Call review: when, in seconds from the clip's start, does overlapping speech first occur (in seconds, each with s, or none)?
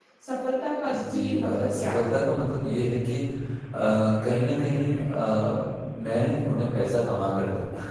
0.9 s